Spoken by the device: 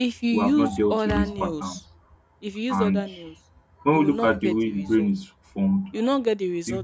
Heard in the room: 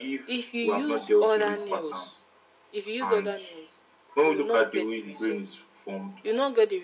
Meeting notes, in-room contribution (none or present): none